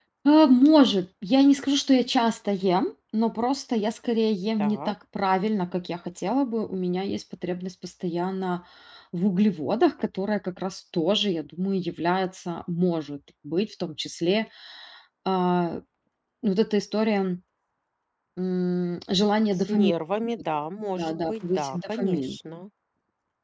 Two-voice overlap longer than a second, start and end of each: 21.0-22.4

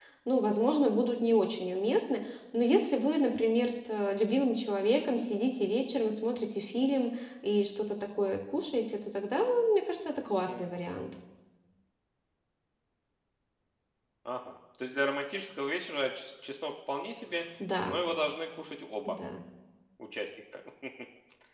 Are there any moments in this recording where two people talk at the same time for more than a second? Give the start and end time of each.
none

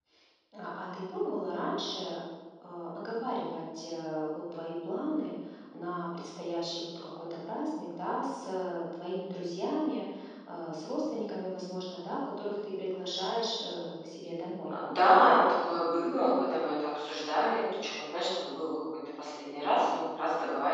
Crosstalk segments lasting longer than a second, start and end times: none

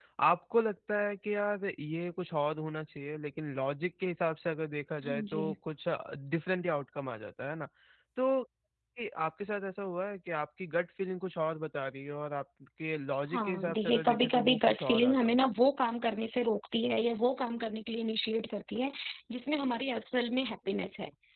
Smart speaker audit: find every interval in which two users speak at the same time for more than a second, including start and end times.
13.3-15.4

